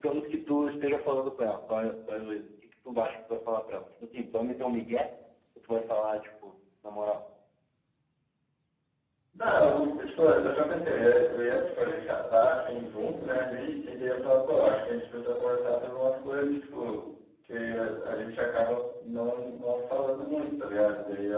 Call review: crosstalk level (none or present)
none